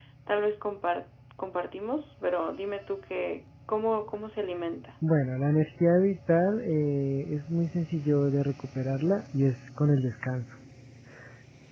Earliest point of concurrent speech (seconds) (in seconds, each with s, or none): none